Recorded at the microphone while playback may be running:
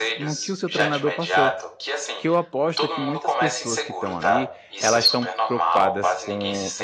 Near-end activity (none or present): present